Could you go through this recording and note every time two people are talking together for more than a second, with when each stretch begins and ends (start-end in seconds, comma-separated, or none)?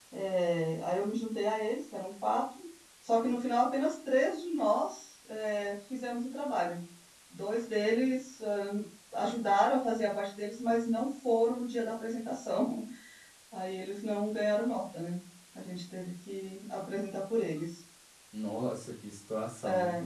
none